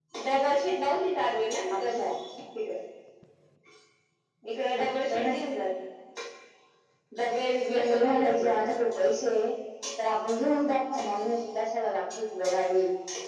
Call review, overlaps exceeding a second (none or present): present